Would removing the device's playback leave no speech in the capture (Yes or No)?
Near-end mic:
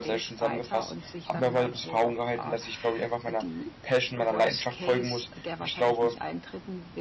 No